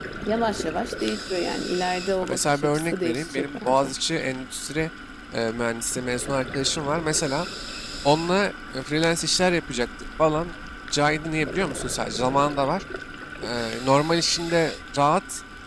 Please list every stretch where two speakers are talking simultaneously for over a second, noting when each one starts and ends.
2.2-3.9

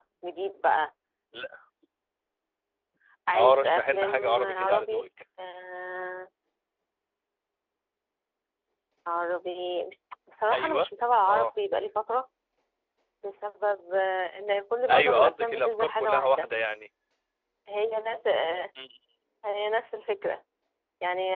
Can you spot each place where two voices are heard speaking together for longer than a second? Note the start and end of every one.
3.3-5.1, 14.9-16.5

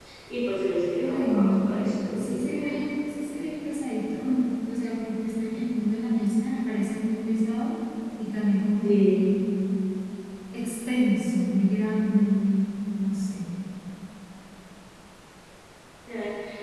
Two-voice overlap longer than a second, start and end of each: 1.0-2.7

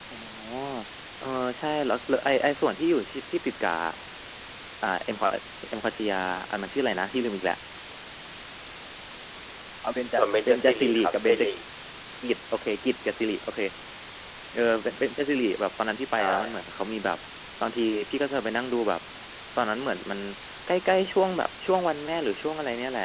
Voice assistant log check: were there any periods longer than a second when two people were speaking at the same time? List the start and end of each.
10.1-11.5

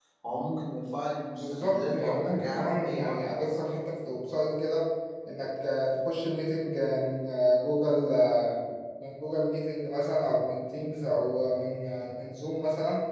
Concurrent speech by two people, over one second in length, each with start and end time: 1.4-3.6

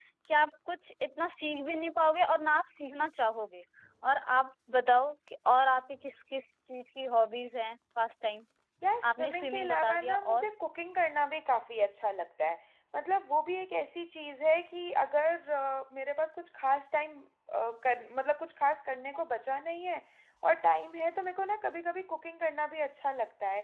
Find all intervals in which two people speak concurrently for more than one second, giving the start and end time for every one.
9.1-10.4

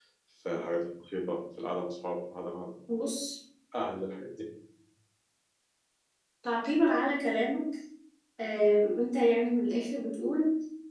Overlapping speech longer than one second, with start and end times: none

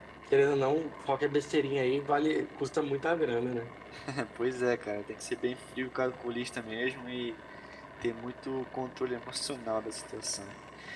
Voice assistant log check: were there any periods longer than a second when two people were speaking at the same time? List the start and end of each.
none

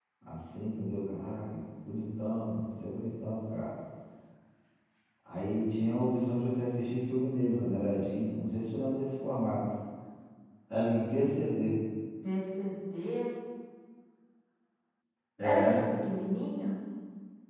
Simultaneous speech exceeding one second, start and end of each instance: none

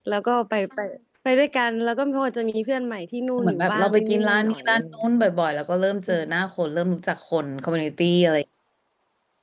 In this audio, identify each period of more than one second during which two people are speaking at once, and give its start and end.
3.4-5.0

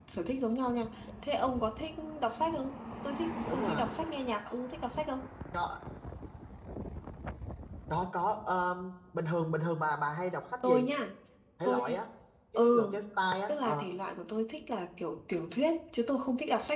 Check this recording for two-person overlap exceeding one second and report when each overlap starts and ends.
none

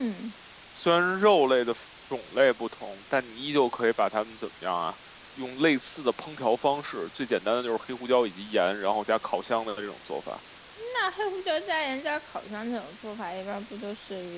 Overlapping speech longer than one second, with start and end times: none

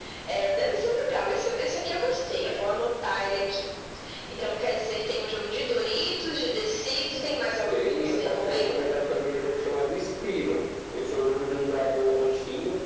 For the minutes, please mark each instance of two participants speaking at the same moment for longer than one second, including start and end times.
7.7-8.9

